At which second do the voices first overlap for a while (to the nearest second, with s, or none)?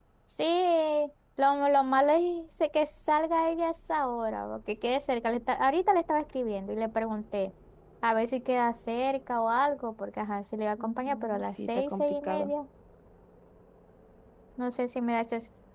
11 s